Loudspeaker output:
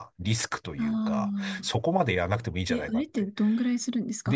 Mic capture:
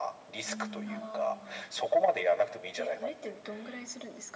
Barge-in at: 0.5 s

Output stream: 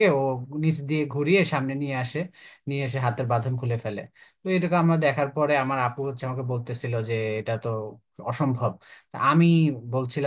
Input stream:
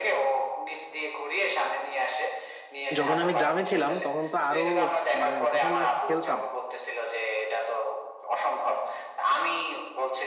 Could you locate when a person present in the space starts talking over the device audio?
3.0 s

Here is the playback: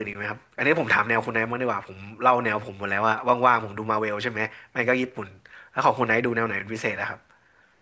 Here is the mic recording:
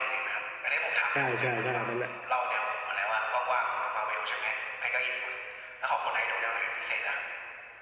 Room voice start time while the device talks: 1.1 s

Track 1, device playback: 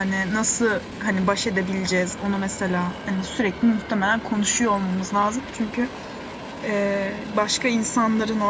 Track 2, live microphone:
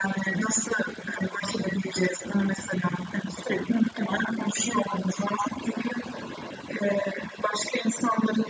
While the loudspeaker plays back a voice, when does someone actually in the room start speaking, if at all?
none

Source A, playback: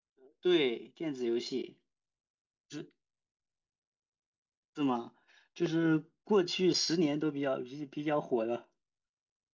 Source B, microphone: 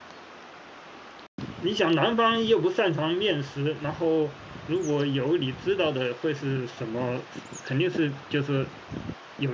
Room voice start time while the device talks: 1.6 s

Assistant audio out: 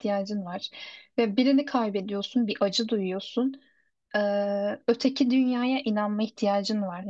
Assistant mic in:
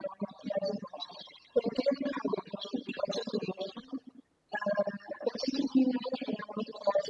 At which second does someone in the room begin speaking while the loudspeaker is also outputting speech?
none

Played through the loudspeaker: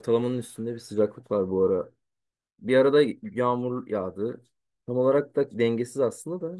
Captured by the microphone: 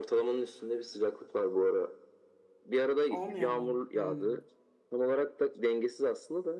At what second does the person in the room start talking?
3.1 s

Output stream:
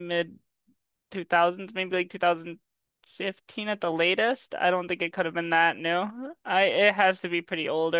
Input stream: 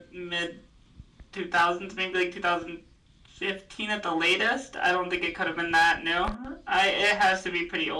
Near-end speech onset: none

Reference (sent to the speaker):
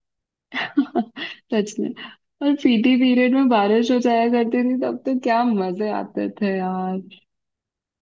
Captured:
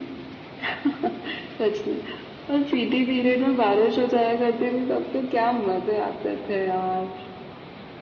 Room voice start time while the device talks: none

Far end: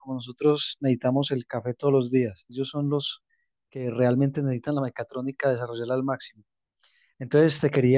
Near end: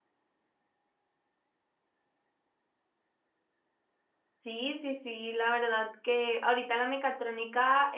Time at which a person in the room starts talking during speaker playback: 4.4 s

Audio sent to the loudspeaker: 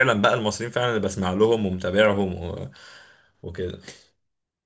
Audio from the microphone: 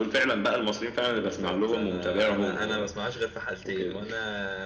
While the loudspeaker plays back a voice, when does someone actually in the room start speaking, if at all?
1.0 s

